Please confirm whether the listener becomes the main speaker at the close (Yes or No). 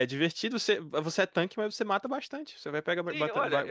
Yes